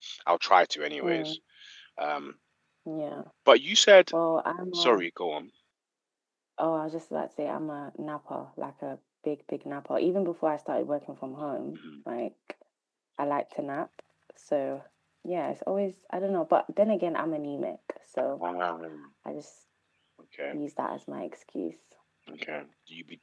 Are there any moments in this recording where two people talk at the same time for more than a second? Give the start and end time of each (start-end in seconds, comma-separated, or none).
none